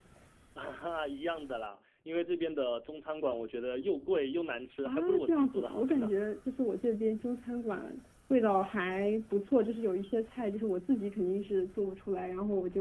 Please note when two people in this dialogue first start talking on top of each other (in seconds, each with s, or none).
4.8 s